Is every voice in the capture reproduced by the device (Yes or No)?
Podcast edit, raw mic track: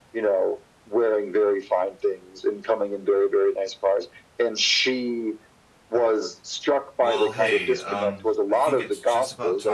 No